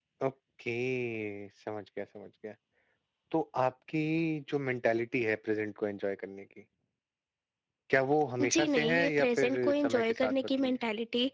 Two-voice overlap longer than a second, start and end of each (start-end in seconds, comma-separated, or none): 8.5-10.8